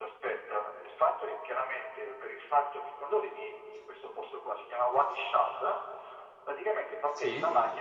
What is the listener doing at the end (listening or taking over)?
listening